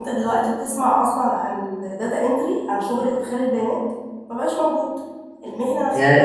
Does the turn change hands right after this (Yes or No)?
Yes